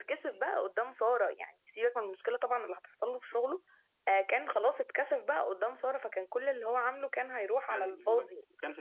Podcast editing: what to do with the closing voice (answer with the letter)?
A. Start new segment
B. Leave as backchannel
A